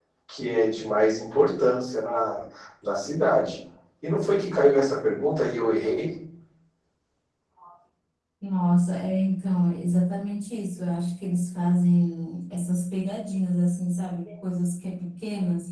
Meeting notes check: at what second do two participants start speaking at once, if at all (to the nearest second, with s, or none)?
none